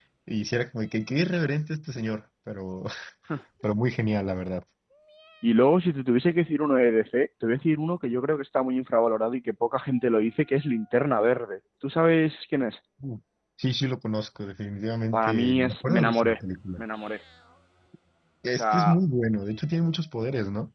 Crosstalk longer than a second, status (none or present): present